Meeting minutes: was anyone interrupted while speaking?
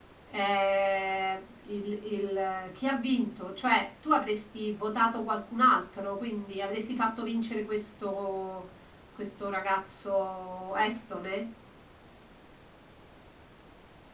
No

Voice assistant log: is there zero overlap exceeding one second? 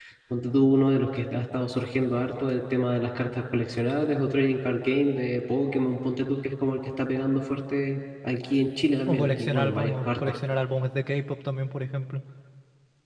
No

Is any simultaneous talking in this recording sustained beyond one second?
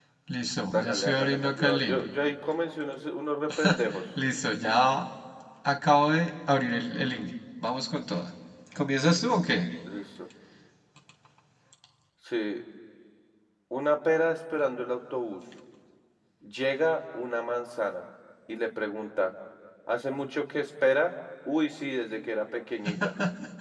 Yes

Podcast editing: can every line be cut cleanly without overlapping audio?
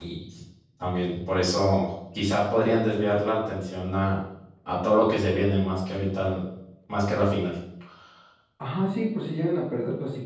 Yes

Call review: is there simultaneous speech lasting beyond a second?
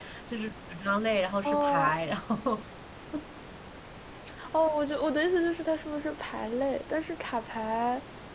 No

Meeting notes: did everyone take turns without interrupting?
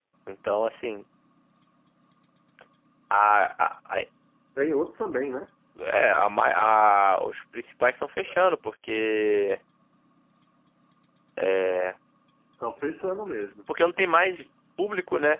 Yes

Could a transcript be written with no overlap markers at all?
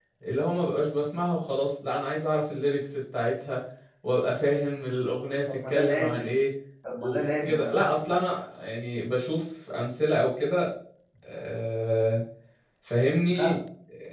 No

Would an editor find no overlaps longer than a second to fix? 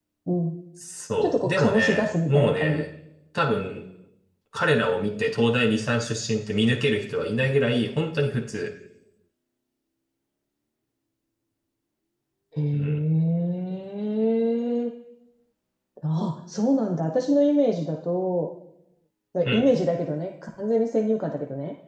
No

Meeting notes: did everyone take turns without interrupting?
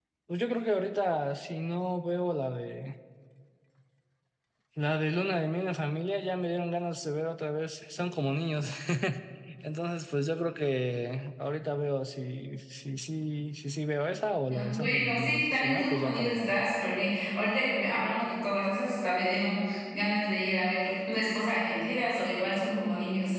No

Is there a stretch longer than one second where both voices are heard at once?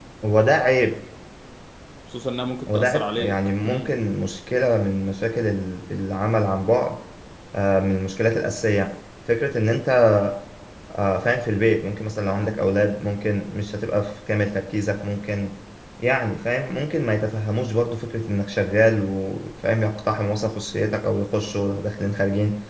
Yes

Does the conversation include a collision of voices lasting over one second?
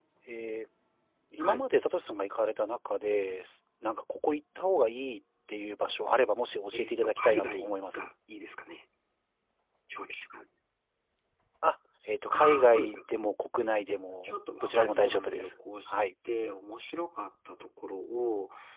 Yes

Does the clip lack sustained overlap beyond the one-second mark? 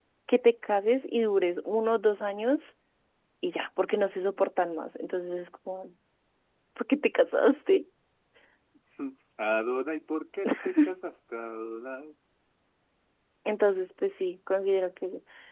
Yes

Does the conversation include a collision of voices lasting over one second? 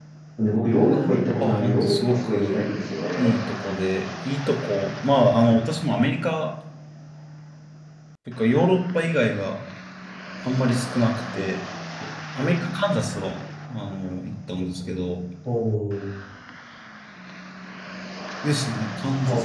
Yes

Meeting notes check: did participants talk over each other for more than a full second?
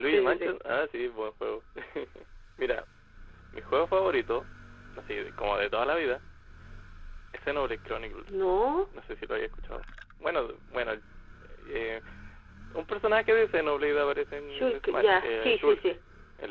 Yes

